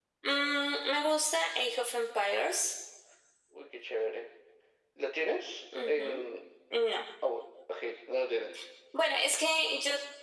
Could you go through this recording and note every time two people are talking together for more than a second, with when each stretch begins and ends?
none

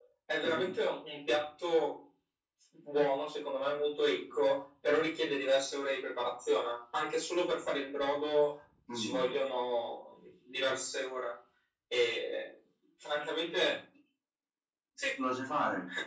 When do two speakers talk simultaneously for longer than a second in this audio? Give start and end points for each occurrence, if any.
none

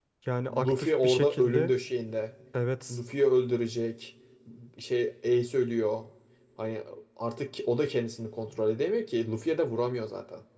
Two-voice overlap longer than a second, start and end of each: 0.5-1.7

